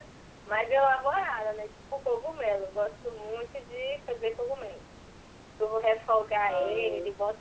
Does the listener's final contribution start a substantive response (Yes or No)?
No